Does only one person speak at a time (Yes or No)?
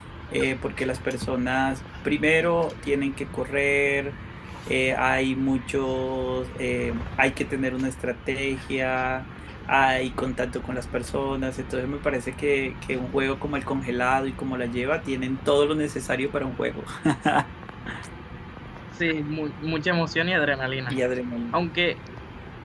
Yes